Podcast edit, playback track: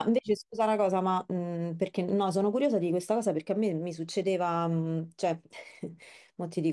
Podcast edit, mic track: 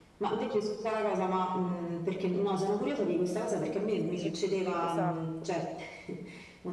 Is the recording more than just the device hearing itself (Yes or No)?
Yes